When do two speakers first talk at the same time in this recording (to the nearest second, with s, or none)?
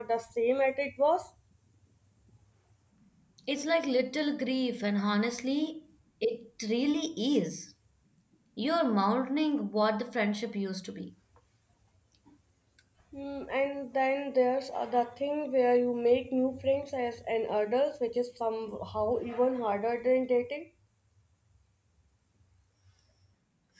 none